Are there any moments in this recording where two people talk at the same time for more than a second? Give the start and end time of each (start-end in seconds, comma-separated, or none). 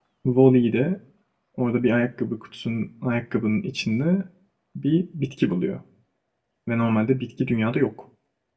none